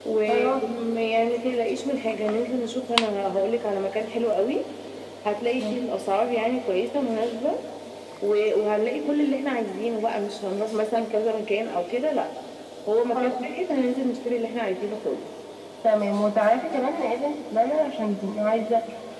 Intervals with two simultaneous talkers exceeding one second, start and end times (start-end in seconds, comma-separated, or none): none